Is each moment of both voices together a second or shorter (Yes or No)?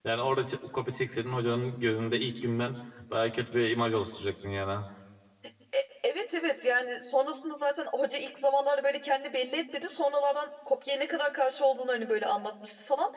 Yes